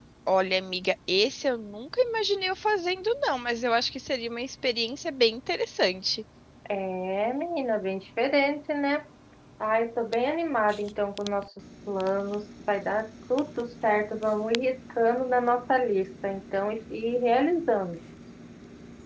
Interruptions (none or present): none